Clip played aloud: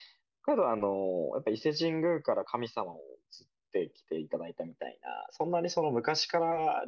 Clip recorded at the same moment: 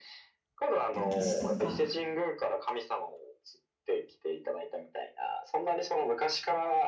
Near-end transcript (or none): 歴史とか